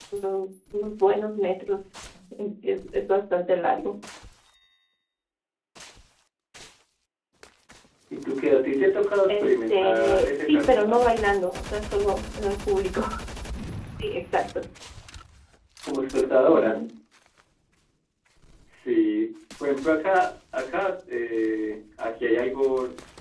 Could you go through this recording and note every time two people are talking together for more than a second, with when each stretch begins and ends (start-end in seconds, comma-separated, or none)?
9.3-11.0